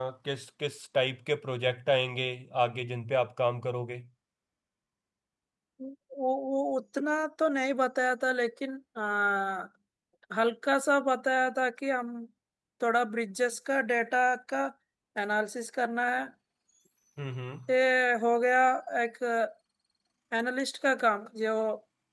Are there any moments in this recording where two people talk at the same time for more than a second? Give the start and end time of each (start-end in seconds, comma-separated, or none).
none